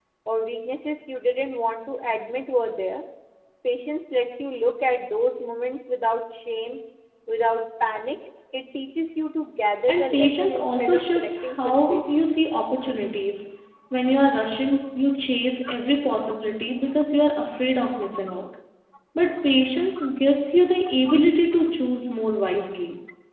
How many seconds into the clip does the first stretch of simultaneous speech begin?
9.9 s

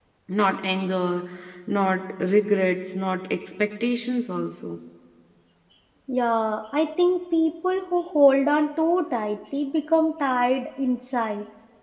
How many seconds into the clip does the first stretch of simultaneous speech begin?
none

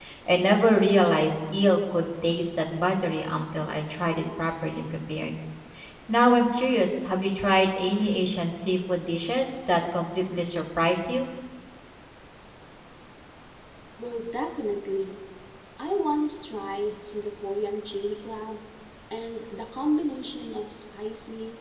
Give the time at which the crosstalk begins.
none

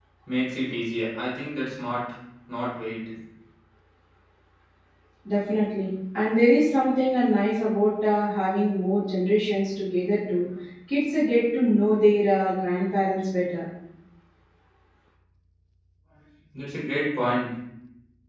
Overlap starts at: none

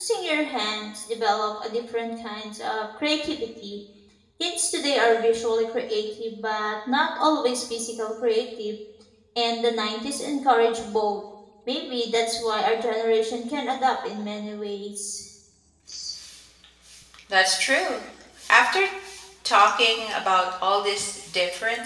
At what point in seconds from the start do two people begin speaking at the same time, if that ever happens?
none

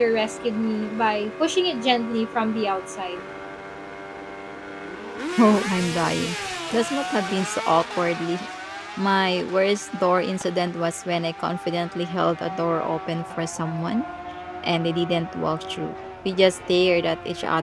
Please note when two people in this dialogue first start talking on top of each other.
none

